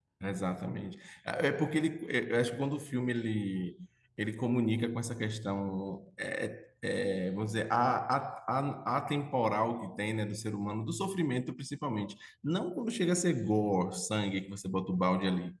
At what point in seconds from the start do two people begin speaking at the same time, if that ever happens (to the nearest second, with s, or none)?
none